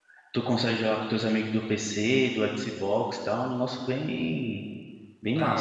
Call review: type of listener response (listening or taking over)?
taking over